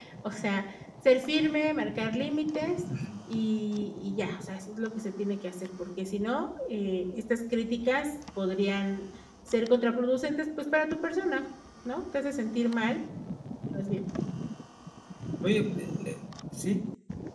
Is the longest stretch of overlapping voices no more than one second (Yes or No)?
Yes